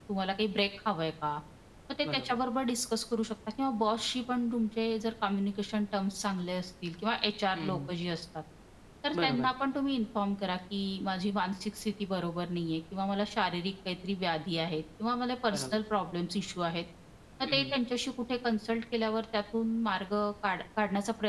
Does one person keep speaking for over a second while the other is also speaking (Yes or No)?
No